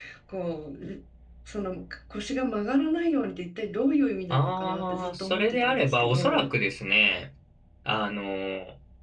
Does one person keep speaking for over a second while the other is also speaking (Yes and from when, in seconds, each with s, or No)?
Yes, from 4.3 s